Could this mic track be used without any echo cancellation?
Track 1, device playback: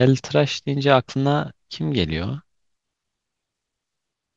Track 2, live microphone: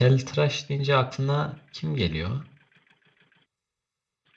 No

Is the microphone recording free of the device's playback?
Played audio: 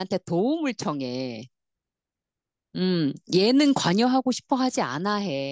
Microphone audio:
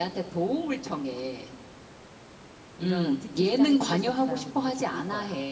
No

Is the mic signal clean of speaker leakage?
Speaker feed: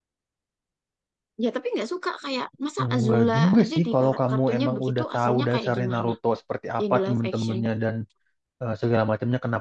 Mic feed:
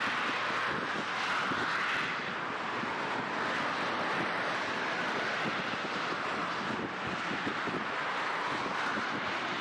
Yes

